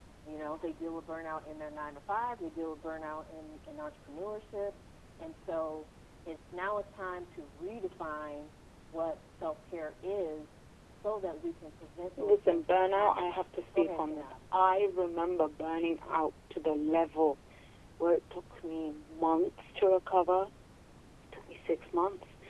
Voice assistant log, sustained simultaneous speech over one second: present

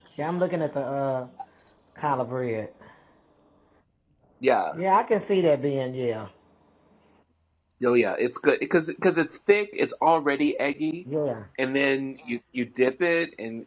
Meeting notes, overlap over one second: none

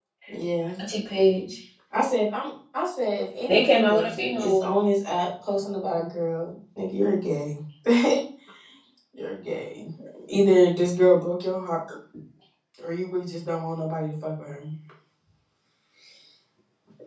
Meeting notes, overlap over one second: present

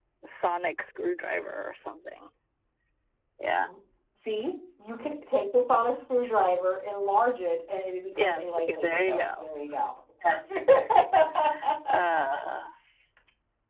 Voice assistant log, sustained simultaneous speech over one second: present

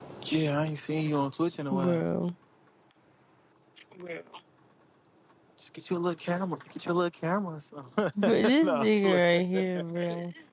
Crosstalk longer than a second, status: present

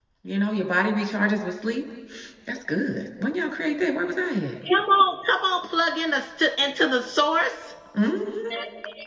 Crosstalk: none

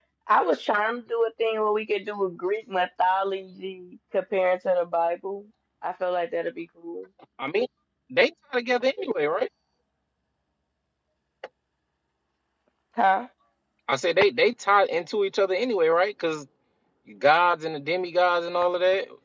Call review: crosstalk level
none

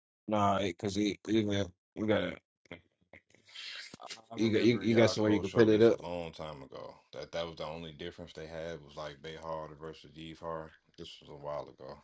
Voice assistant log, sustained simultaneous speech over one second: present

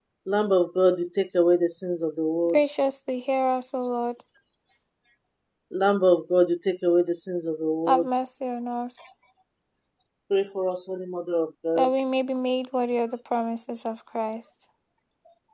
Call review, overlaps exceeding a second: none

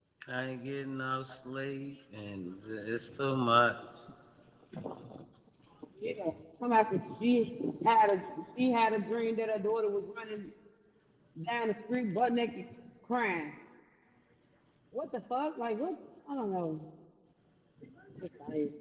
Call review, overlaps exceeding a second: none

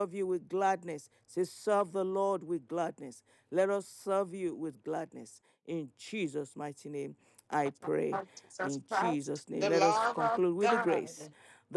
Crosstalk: present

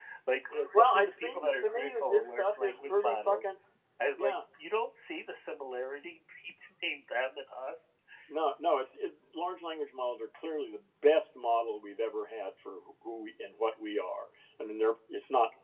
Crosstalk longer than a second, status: present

